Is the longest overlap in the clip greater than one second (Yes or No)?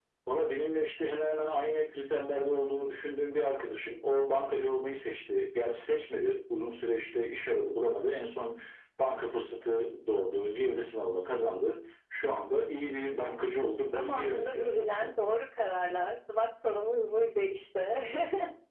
Yes